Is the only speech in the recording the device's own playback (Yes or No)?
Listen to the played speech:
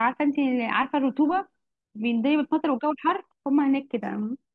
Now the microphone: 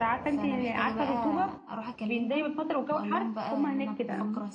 No